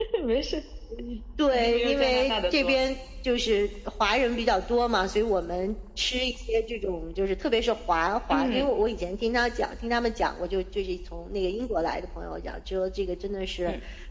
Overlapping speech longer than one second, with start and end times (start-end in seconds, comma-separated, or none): 1.5-2.8